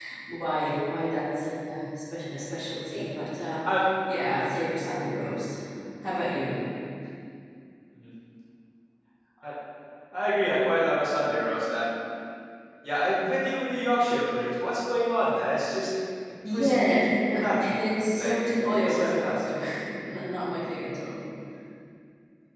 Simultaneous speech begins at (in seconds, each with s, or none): 16.4 s